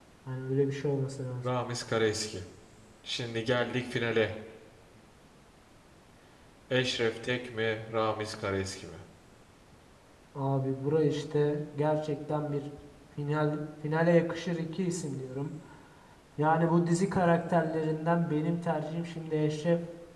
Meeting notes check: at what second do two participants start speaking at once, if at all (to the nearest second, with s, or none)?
none